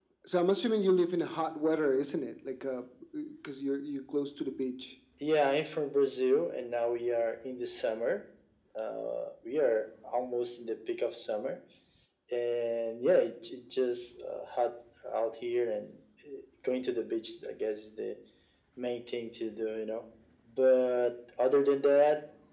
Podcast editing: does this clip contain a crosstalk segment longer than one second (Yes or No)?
No